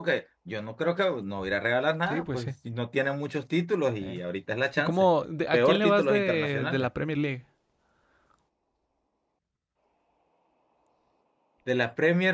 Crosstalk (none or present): present